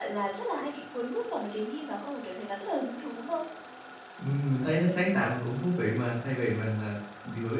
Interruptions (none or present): none